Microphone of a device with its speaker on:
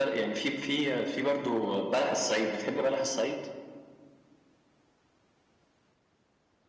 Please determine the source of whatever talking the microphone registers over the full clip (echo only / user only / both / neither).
echo only